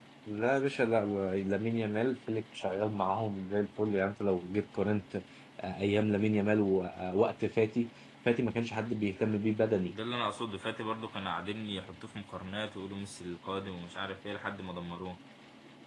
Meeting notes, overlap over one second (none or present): none